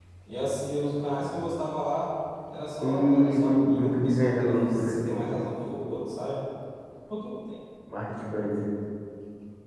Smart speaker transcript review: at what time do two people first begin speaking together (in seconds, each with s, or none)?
2.8 s